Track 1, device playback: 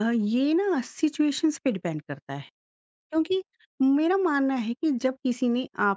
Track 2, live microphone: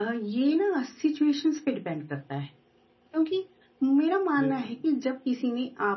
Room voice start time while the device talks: 4.4 s

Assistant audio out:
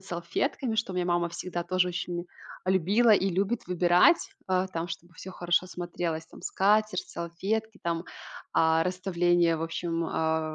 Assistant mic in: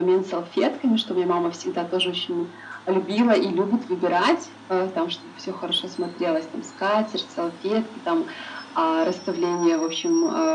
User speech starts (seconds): none

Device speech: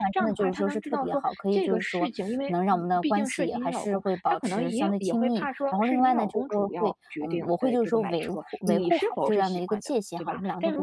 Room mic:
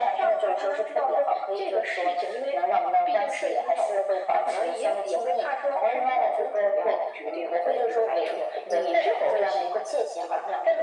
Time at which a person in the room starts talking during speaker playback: none

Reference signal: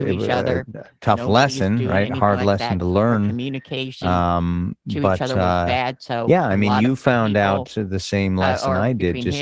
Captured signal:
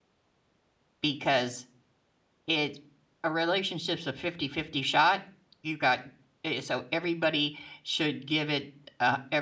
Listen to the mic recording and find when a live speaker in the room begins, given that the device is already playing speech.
1.0 s

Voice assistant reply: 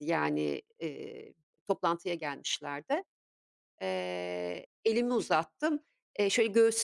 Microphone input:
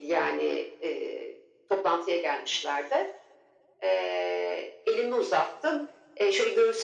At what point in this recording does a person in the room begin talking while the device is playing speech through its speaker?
none

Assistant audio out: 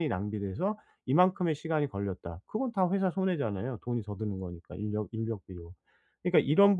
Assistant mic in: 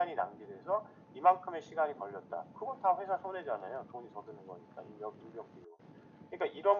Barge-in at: none

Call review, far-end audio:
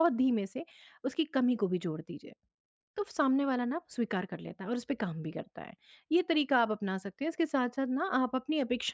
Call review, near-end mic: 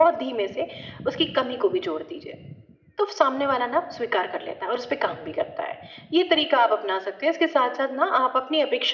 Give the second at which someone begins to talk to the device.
none

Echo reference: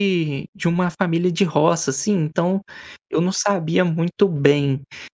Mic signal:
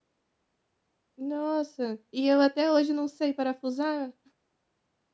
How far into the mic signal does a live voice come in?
1.2 s

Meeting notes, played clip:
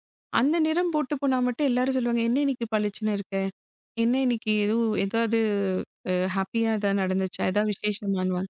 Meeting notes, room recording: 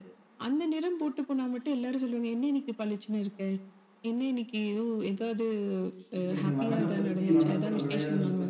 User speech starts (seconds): 6.2 s

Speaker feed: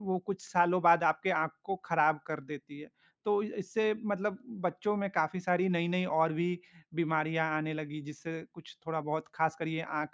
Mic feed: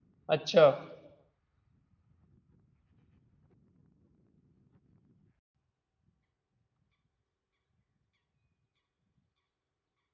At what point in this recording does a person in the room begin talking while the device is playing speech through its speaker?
0.4 s

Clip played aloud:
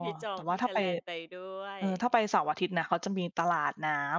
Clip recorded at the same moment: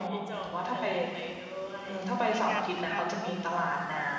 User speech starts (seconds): 2.3 s

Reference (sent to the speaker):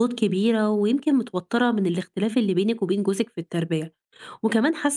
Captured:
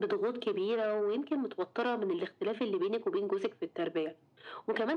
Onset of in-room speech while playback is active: none

